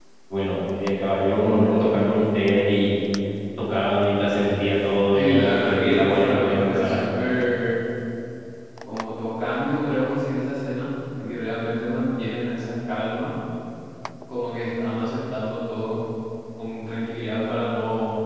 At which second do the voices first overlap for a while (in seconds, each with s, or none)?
5.1 s